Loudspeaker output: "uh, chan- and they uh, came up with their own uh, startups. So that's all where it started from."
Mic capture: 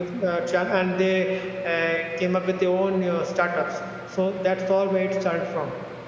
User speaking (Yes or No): No